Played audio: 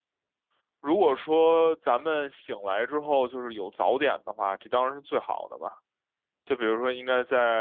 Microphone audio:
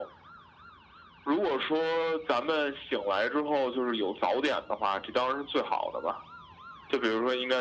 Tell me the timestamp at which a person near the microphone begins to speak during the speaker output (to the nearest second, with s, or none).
none